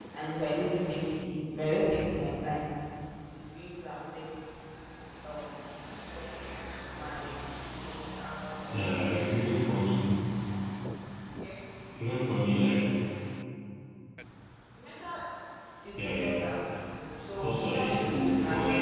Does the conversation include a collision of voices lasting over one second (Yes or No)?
Yes